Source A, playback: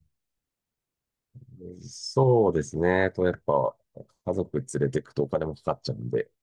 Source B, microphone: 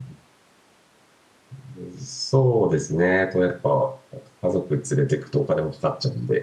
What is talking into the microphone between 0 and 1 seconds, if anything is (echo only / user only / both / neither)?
neither